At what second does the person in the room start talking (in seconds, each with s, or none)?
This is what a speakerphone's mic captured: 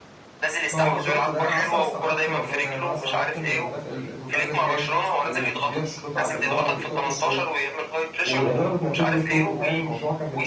0.7 s